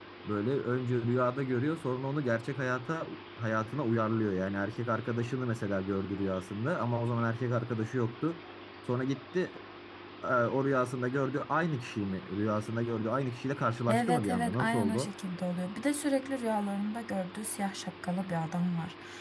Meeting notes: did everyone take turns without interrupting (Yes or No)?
No